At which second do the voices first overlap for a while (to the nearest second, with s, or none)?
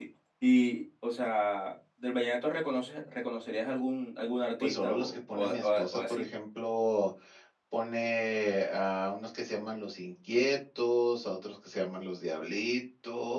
5 s